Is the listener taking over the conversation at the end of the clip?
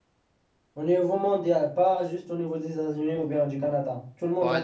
Yes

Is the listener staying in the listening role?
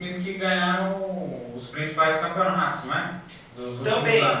No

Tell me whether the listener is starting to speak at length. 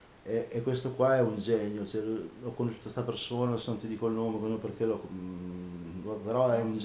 No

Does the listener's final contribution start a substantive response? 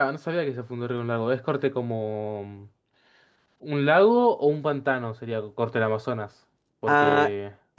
Yes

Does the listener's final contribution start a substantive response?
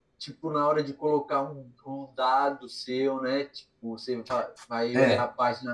No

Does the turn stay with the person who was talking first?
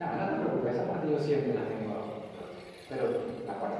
Yes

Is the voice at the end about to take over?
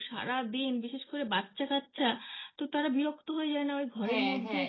Yes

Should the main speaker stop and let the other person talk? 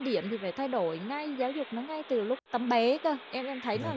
Yes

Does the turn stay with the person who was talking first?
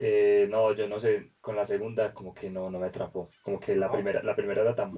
Yes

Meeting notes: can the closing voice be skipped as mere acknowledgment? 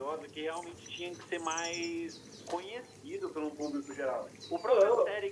Yes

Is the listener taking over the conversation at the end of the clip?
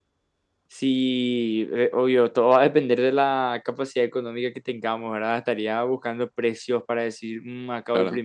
No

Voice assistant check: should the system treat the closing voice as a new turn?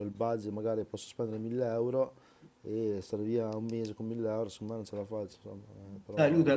Yes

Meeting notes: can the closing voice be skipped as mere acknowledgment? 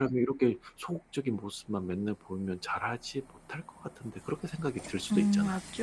No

